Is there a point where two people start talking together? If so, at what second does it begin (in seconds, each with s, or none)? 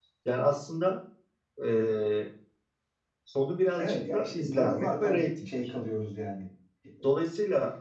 3.8 s